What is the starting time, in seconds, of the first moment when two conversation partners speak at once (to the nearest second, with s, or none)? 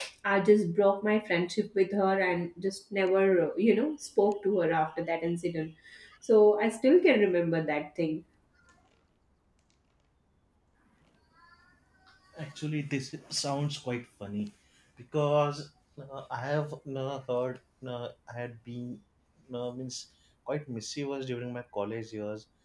none